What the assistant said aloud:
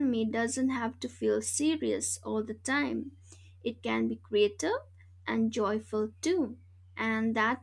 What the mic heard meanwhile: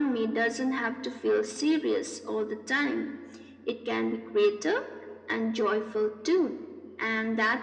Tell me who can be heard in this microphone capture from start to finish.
echo only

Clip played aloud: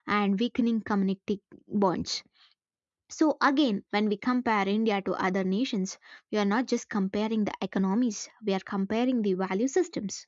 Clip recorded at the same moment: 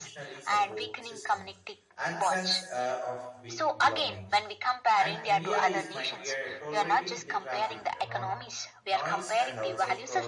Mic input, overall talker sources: both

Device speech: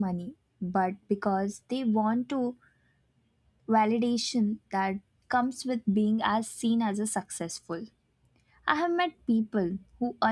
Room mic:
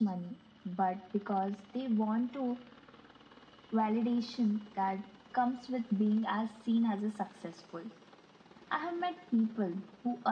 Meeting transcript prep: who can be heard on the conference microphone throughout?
echo only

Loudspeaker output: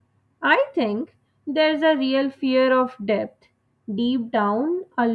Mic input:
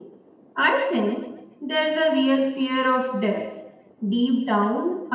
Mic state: echo only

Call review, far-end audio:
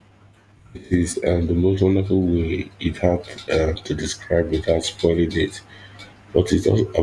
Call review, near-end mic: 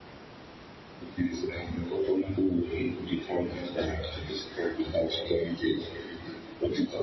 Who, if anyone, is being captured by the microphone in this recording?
echo only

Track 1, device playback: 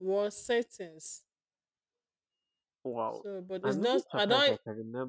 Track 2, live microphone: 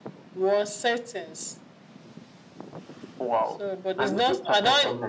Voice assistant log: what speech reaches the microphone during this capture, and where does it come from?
both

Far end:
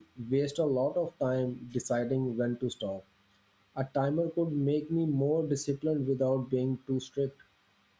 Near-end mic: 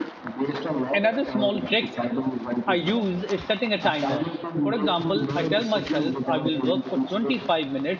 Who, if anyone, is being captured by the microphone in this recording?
both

